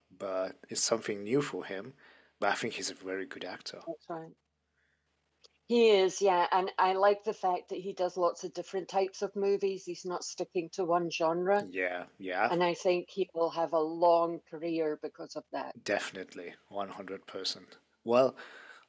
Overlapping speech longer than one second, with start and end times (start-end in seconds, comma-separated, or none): none